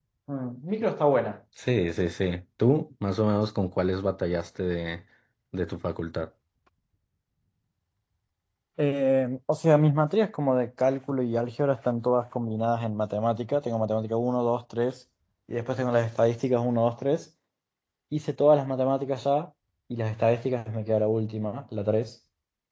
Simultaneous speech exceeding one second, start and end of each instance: none

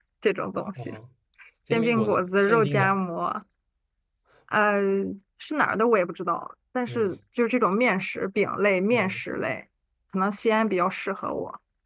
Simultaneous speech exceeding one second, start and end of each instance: 1.7-3.0

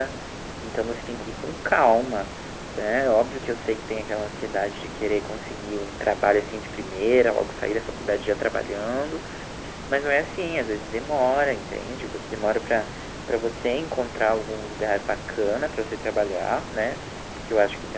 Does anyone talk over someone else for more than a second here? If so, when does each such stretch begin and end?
none

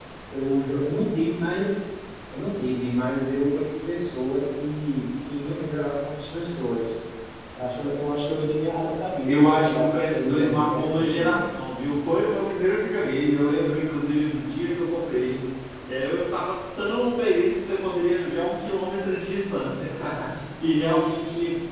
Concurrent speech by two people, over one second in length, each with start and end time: 9.3-11.5

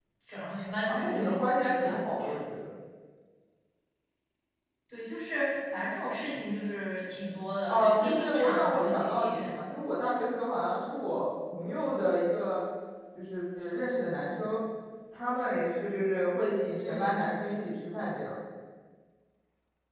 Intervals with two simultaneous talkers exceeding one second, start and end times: 0.9-2.4, 7.7-9.3

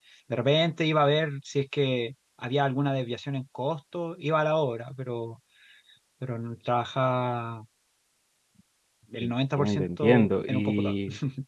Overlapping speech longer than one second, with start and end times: 9.2-10.9

